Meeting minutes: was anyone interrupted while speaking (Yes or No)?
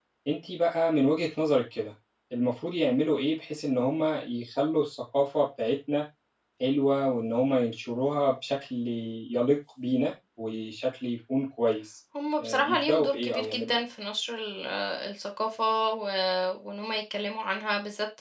Yes